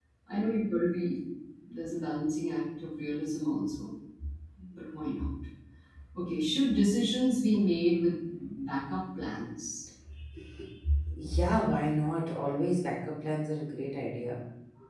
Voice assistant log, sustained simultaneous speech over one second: none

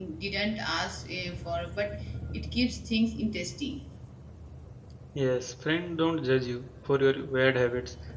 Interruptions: none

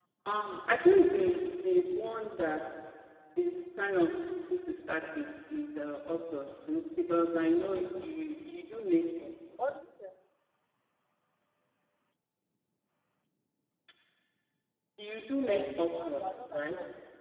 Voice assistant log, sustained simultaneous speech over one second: present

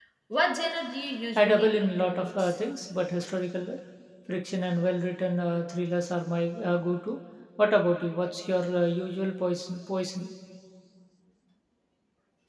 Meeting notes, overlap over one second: present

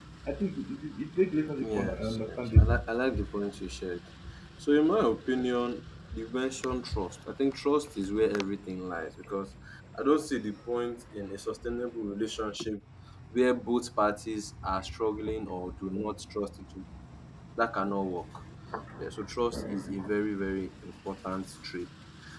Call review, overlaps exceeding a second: present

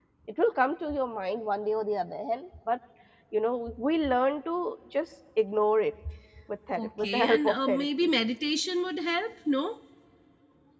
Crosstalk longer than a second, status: present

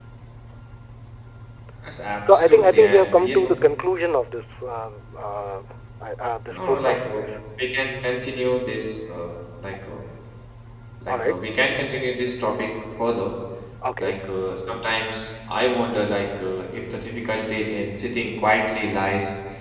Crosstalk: present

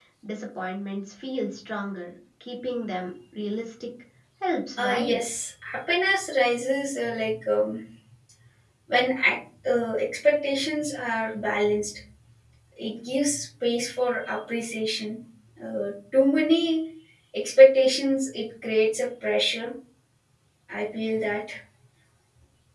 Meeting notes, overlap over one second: none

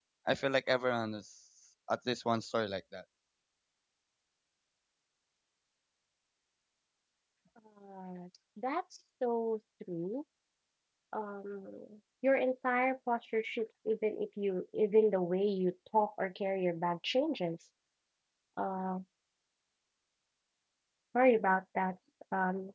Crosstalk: none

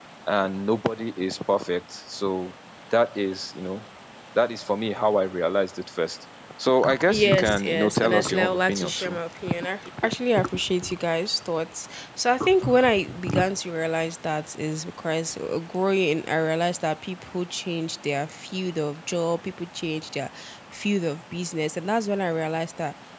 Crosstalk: present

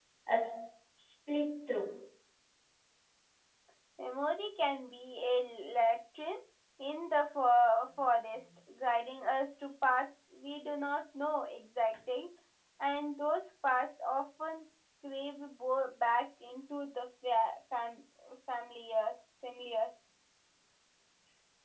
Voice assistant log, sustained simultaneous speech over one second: none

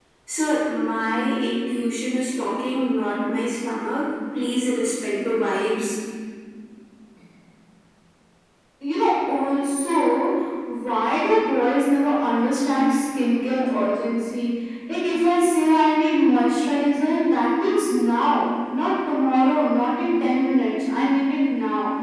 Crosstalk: none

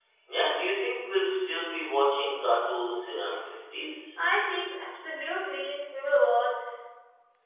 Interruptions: none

